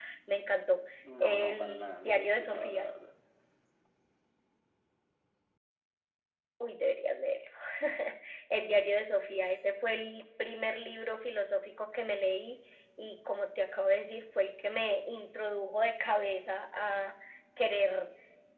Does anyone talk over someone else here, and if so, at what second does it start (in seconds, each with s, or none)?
1.2 s